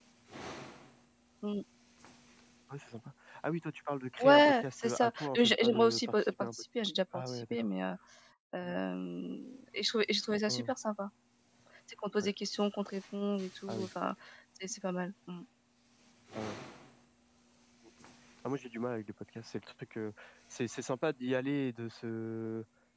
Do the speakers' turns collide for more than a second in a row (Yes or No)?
Yes